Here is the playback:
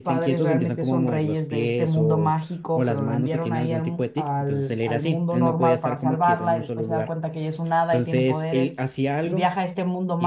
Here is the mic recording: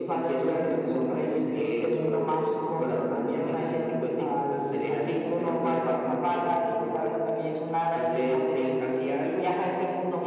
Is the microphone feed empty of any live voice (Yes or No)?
Yes